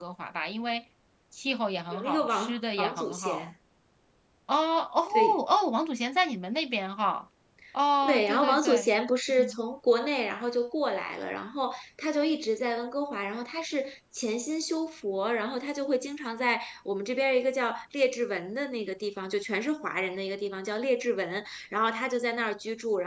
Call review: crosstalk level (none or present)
present